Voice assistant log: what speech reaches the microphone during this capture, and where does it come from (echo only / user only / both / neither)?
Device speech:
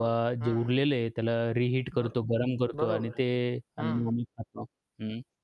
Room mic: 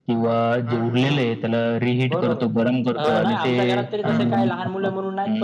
both